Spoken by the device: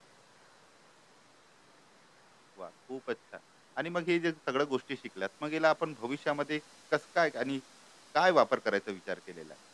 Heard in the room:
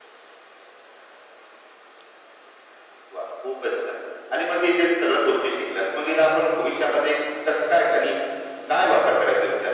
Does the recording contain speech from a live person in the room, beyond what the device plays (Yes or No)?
No